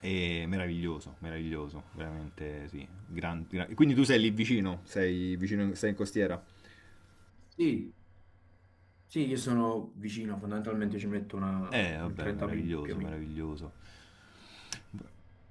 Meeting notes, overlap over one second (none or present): present